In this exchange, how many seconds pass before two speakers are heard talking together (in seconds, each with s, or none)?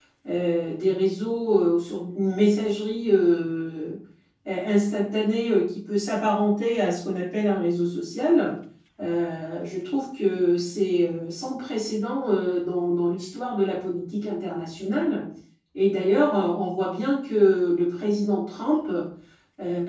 none